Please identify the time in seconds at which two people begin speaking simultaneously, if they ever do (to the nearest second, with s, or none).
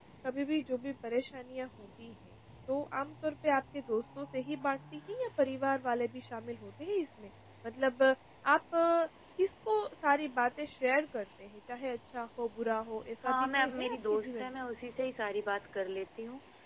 13 s